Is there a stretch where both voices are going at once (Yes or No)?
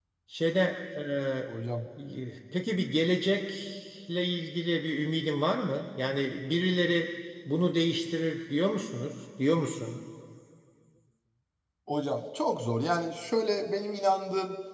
No